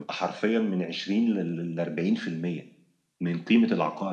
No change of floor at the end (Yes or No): Yes